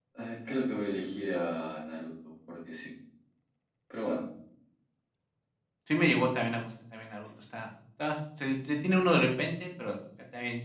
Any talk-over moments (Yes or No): No